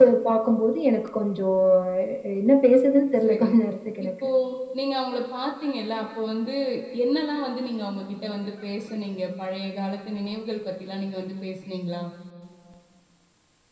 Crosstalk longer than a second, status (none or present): none